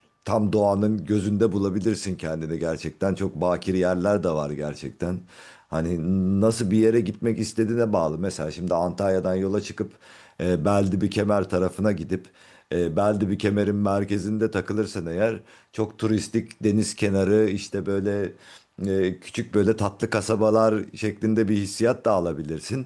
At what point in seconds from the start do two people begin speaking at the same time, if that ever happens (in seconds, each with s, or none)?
none